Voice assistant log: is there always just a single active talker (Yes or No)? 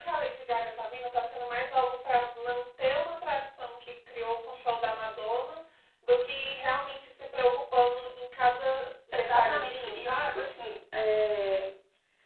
No